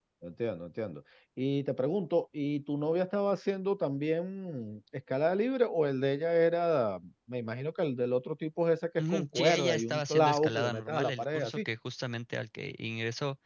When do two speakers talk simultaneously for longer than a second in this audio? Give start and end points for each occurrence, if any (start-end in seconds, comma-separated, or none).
9.0-11.6